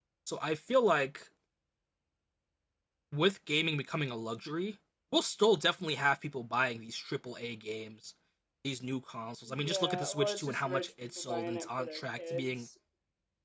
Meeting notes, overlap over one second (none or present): present